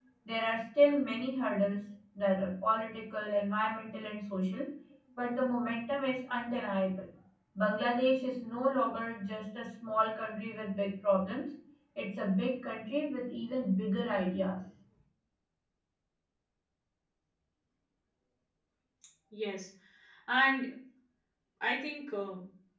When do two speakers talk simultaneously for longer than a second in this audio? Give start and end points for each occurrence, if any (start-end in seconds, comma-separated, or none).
none